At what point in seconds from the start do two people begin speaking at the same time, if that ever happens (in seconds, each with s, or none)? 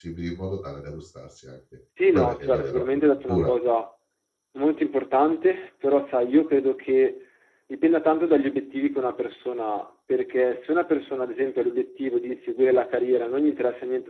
2.0 s